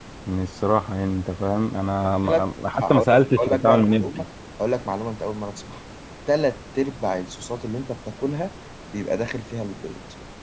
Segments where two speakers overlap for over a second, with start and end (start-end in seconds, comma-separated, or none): 2.2-4.2